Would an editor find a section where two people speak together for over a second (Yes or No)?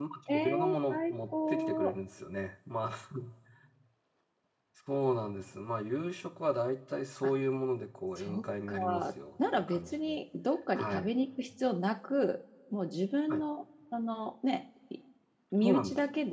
Yes